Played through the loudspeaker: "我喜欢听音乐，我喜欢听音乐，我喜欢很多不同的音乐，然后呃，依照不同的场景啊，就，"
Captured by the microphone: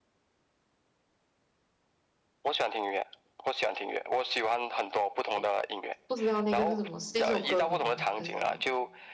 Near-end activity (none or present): present